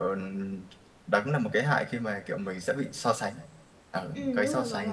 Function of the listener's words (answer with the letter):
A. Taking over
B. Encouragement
A